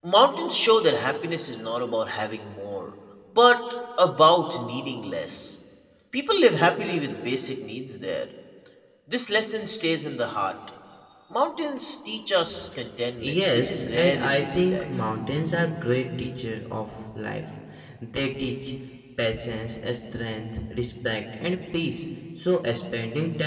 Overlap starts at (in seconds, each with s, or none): 13.2 s